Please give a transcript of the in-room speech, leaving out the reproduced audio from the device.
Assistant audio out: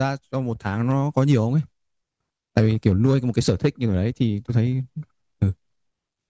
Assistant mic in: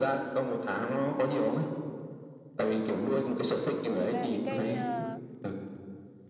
À, thật ra thì cái ờ,

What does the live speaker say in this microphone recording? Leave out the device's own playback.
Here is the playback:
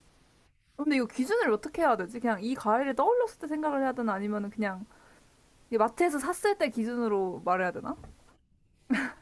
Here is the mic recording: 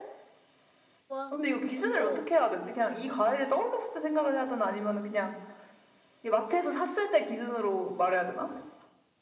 와, 뭐, 어,

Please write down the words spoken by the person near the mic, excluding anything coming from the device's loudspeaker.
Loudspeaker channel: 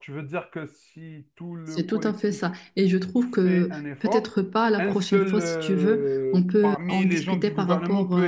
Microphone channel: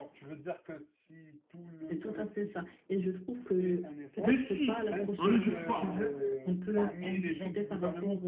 Mais si on n'éduque pas

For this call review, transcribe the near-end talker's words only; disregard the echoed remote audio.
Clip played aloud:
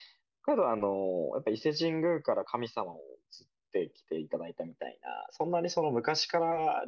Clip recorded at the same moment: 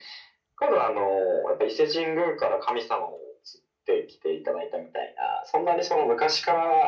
none

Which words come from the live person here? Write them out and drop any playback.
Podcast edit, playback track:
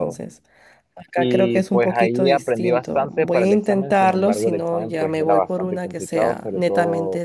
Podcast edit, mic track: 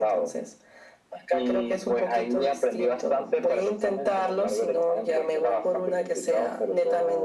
none

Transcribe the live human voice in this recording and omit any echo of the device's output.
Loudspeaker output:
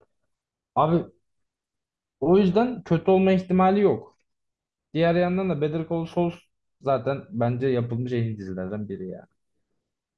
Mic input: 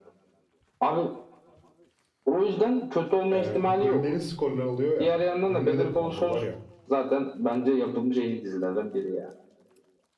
Ee, bu bölümlerin skorları oluyor ya. Bölümleri de puanlıyorlar ya.

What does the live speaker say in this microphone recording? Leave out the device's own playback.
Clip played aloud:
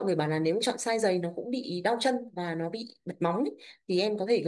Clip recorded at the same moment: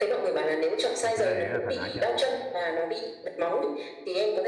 mà cái giày đấy là thoải mái chị ạ

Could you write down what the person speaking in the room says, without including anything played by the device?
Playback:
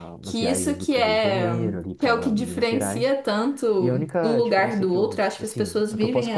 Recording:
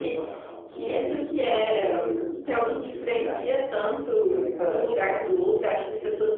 none

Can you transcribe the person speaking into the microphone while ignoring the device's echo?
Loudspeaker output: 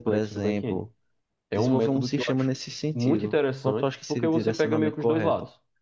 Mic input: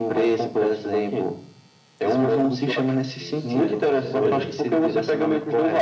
Isso, isso. É, com certeza.

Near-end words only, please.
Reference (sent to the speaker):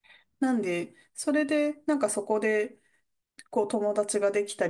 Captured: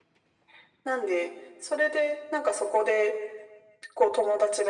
none

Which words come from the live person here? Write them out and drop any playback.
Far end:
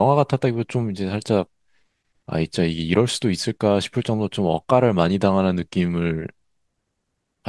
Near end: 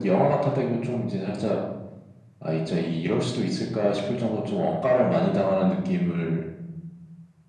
none

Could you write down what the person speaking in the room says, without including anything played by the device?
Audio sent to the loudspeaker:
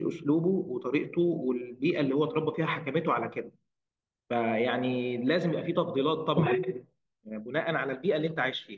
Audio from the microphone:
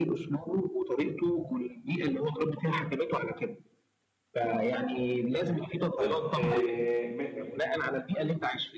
طيب إيه ب-

